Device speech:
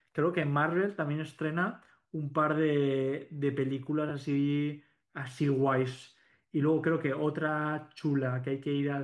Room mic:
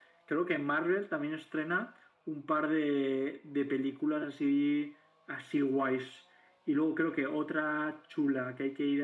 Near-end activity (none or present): none